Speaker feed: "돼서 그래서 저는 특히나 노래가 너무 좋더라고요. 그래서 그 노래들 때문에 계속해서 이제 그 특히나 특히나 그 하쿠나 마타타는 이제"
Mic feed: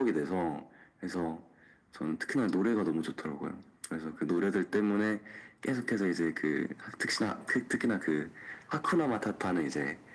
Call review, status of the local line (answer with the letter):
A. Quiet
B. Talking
A